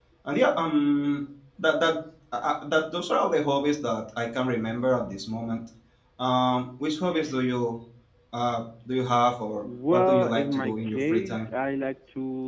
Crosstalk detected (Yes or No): Yes